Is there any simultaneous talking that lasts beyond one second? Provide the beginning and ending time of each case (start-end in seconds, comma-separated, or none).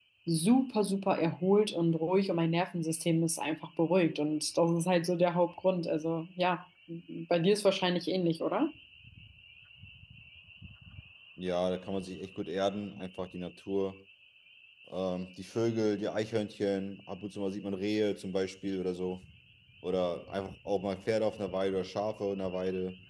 none